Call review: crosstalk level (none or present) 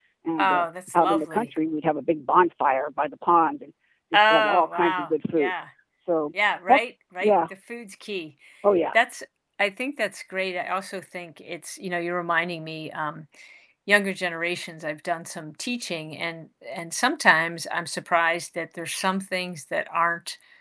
present